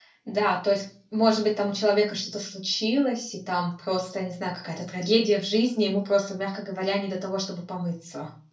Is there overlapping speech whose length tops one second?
No

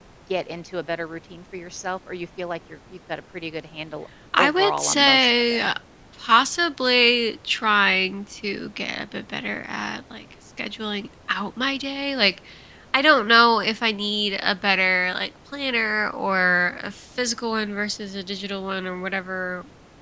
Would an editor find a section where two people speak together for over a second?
Yes, from 4.3 s

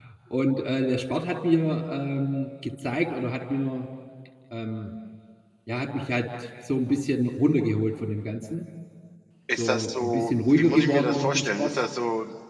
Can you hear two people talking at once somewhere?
Yes, from 9.6 s

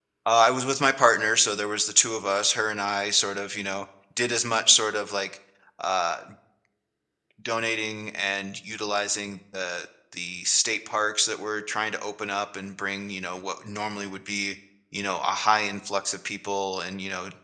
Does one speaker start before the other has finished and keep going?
No

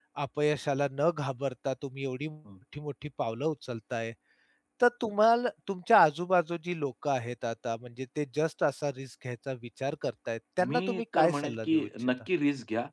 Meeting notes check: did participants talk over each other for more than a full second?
Yes, from 10.6 s

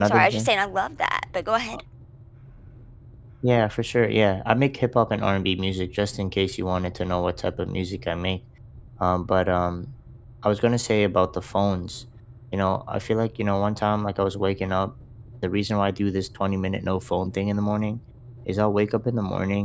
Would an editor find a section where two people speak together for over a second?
No

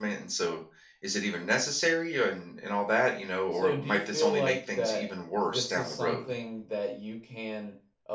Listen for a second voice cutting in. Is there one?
Yes, from 3.5 s

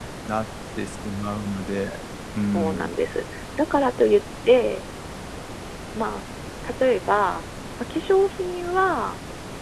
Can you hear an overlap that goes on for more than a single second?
No

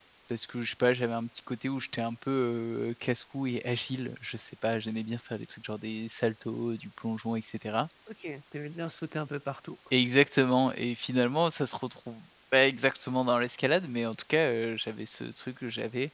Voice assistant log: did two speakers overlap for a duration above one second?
No

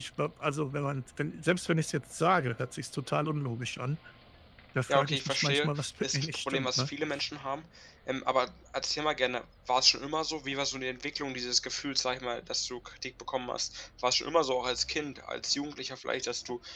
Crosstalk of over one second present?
Yes, from 4.9 s

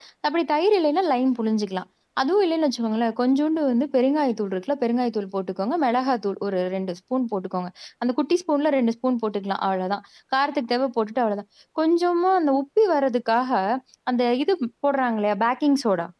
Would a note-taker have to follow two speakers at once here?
No

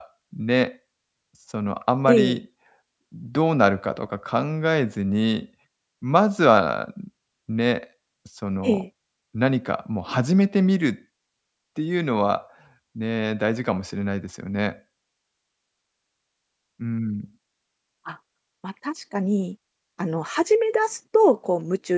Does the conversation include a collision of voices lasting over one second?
No

